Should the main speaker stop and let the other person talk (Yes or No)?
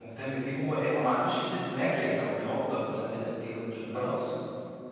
No